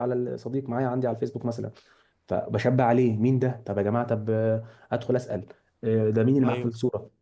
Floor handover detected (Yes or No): No